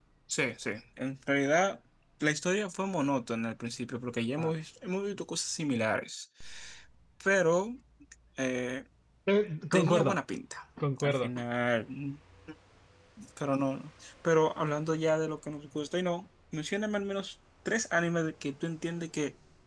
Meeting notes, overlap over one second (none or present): none